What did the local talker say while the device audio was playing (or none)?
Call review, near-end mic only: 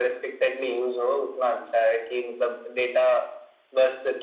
none